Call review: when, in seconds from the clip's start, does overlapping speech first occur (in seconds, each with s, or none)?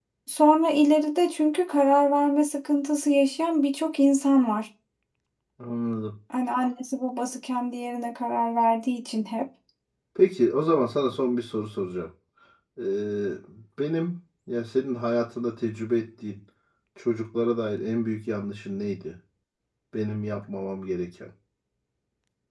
none